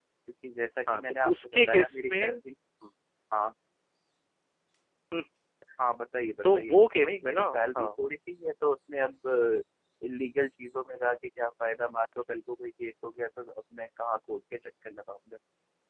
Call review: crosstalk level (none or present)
present